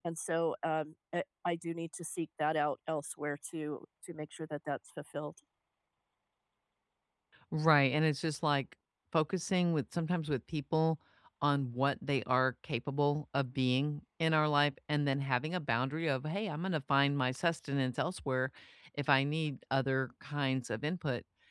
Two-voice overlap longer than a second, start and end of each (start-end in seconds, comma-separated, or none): none